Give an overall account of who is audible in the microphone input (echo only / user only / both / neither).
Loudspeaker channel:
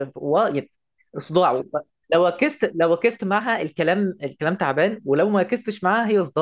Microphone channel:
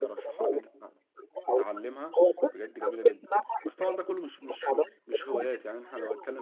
both